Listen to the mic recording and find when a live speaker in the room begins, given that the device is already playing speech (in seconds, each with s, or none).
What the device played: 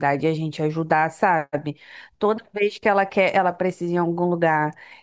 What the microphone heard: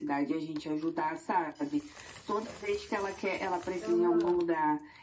3.9 s